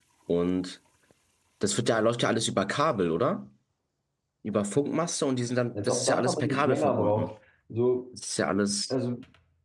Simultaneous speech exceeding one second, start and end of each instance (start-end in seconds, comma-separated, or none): 5.8-7.3